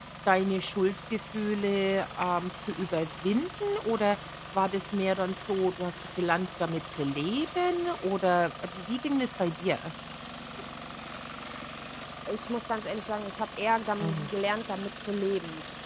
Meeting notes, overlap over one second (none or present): none